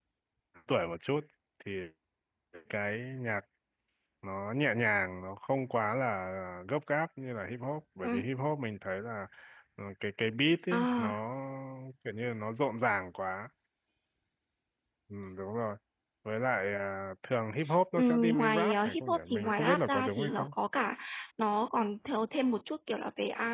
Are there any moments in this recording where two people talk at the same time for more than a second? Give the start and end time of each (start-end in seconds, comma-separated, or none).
17.9-20.5